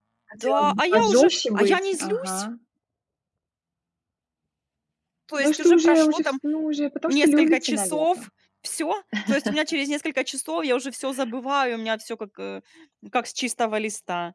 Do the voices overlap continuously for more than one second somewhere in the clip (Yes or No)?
Yes